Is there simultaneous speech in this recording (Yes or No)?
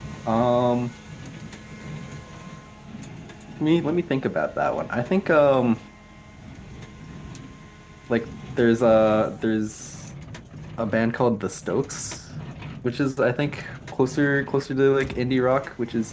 No